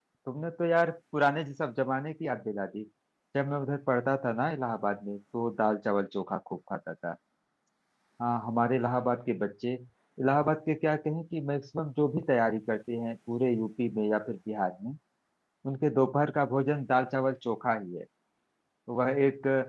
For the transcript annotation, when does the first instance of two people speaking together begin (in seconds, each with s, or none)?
none